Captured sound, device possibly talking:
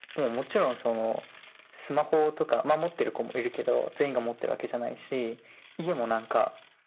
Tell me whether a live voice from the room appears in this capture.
No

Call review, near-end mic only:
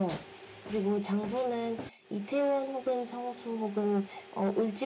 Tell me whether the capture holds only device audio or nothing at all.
Yes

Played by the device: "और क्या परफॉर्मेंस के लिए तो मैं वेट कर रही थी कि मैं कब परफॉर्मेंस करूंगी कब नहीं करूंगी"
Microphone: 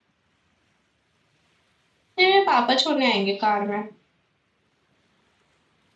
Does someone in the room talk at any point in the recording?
Yes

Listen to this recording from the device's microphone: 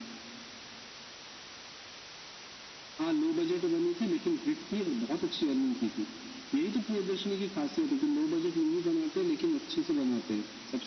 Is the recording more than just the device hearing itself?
No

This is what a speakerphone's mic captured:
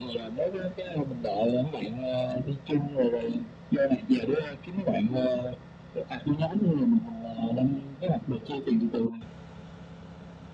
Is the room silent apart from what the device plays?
Yes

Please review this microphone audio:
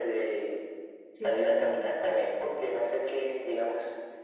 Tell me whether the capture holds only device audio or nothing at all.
No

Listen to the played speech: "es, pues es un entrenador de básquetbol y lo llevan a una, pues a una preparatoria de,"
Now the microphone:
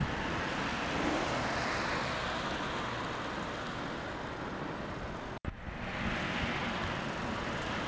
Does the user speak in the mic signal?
No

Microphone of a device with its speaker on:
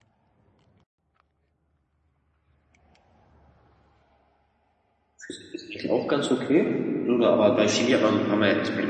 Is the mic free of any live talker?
No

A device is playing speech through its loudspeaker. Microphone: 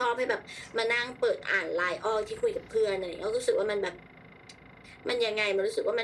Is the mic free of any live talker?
Yes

